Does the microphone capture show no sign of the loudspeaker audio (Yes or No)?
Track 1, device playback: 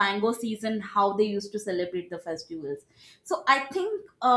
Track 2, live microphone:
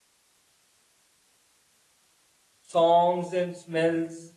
Yes